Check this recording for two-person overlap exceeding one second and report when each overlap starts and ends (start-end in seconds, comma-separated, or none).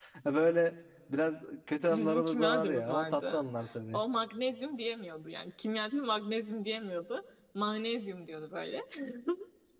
1.9-3.4